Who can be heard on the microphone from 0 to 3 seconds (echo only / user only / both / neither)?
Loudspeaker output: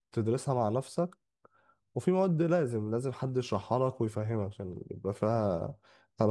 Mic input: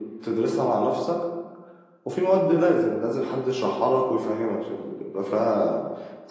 echo only